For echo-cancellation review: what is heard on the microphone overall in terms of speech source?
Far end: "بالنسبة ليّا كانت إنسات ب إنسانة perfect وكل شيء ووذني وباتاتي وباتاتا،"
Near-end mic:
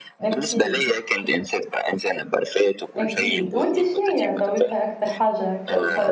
both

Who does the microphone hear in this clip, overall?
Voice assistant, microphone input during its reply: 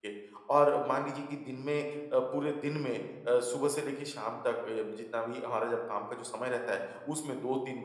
user only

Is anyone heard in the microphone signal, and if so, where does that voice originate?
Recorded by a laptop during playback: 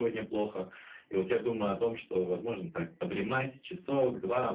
echo only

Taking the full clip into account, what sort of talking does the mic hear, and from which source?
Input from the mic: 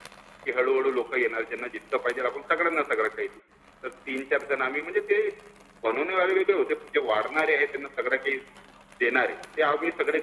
echo only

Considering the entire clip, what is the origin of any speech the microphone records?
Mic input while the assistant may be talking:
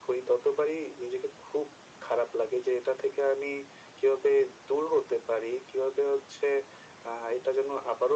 echo only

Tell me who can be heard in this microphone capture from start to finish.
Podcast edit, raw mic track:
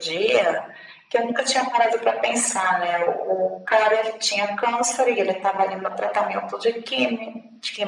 echo only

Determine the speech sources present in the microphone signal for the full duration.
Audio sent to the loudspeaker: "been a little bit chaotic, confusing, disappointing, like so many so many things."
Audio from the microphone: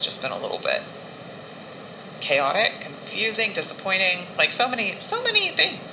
echo only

